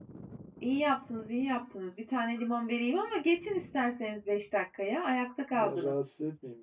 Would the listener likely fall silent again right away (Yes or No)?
No